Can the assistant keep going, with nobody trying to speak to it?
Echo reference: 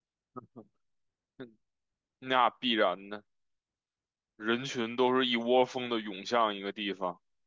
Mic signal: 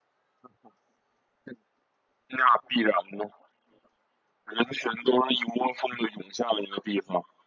Yes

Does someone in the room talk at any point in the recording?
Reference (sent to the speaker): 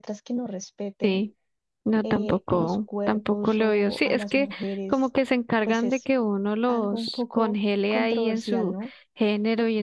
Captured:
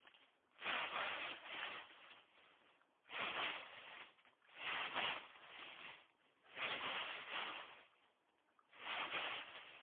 No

